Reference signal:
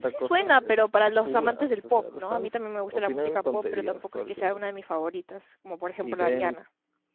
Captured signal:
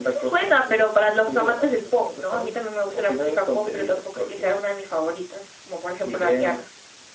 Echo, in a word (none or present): present